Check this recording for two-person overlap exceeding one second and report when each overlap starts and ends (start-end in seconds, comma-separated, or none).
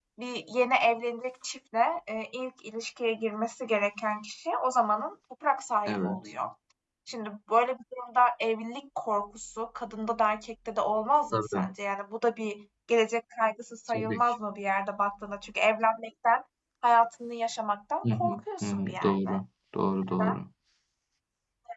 18.1-19.4